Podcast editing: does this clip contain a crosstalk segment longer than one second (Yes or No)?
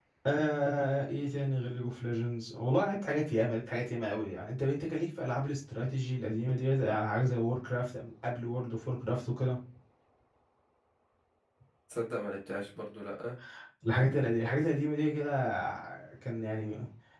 No